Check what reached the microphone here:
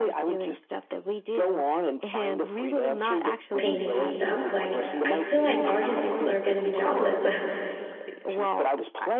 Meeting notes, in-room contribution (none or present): present